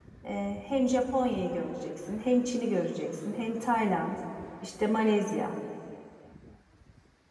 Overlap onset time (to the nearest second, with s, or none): none